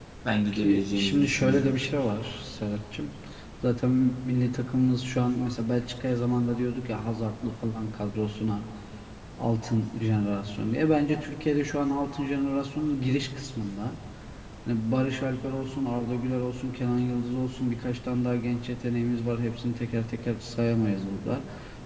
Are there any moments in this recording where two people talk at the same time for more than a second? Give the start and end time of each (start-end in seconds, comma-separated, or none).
0.5-1.8